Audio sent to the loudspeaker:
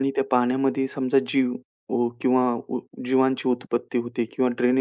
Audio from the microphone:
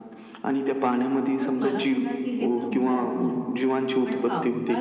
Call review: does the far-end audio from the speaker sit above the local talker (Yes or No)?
Yes